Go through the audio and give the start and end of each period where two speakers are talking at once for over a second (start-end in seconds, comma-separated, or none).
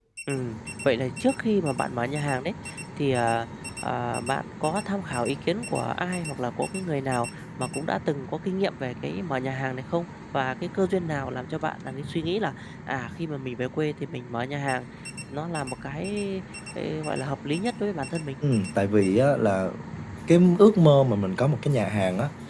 none